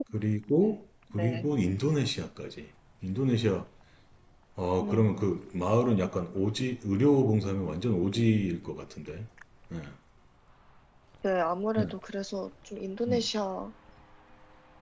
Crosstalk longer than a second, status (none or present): none